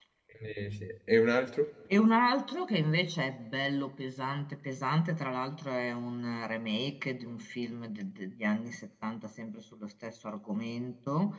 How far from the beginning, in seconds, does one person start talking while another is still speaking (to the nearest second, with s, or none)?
none